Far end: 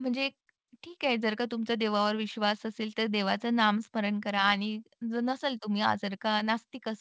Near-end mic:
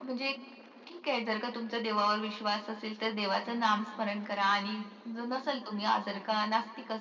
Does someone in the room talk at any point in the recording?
No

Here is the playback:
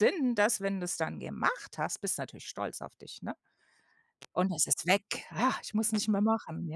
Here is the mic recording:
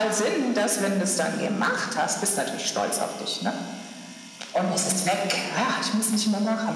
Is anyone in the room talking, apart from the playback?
No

